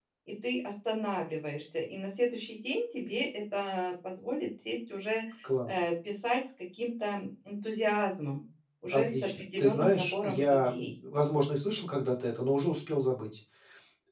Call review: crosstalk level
present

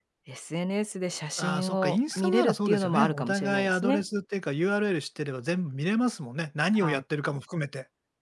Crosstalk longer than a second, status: present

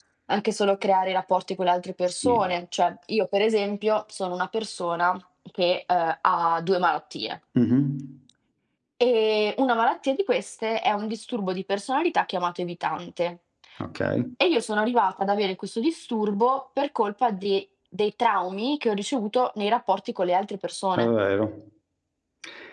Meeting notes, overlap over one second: none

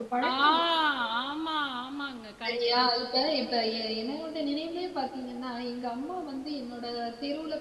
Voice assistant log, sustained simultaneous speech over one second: none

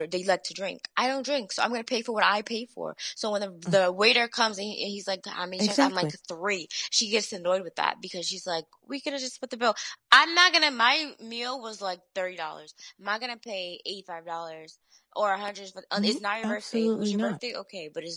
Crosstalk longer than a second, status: present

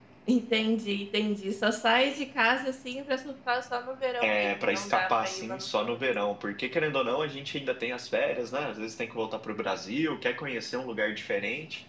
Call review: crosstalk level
present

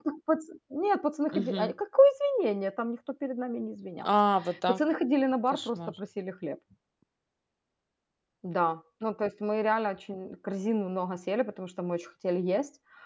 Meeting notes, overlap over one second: none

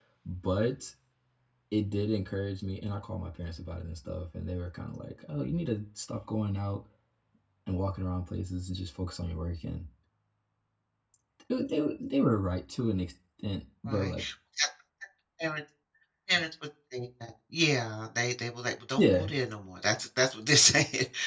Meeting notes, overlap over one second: none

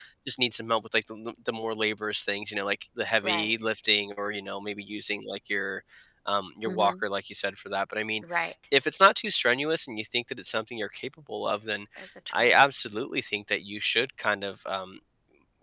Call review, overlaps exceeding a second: none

